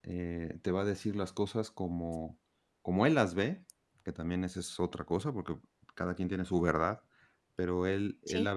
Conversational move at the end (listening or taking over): listening